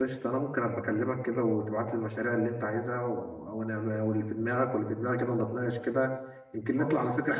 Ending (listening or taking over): taking over